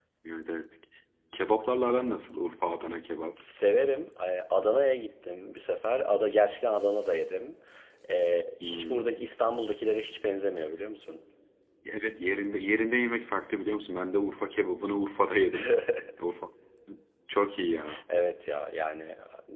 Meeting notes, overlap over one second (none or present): none